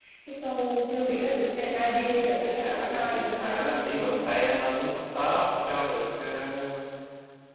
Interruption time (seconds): 2.2 s

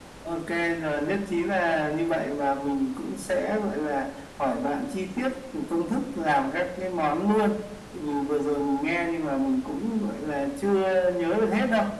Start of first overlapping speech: none

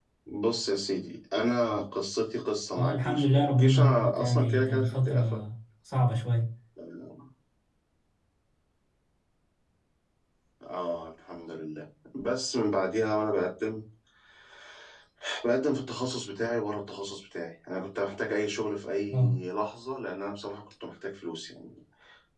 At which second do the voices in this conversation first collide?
2.7 s

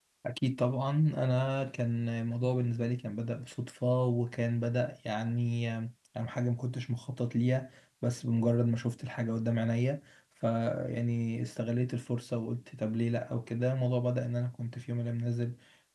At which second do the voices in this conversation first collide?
none

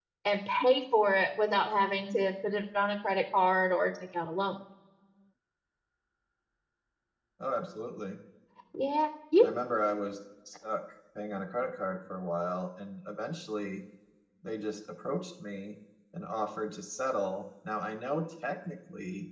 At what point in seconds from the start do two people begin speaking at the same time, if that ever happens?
none

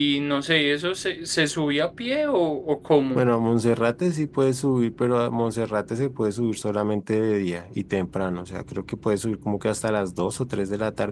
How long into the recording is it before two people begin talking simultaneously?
none

